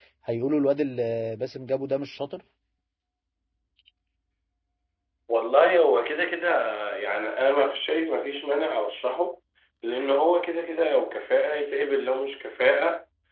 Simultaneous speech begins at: none

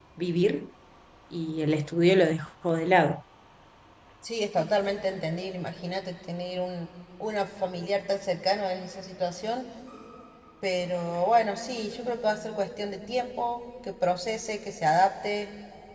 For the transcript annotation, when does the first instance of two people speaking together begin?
none

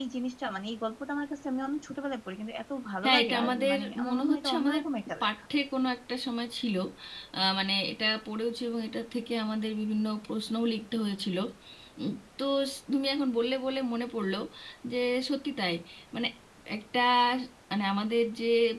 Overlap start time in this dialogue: 3.0 s

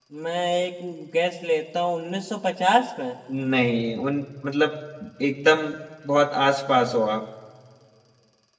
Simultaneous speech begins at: none

